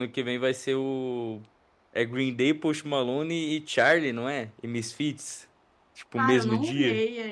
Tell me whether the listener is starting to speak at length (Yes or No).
Yes